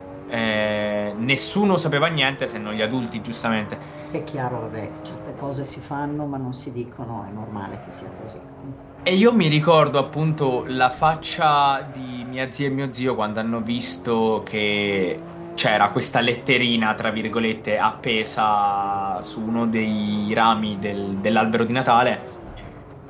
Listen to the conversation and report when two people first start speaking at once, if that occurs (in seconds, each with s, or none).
none